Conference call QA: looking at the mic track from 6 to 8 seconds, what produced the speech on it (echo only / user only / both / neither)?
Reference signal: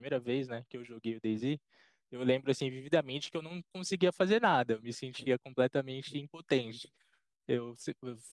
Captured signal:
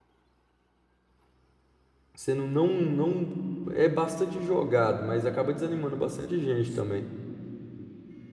user only